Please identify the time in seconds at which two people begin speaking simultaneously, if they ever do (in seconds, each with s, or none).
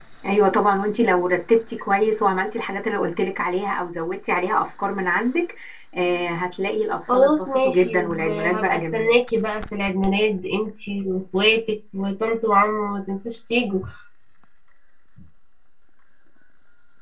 7.1 s